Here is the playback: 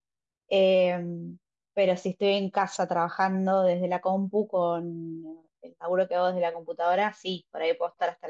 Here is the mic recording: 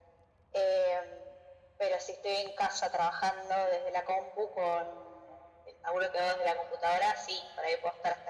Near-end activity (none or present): none